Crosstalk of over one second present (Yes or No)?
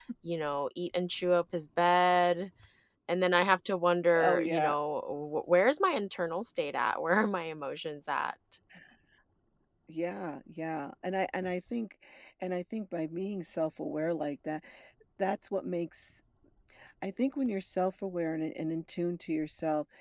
No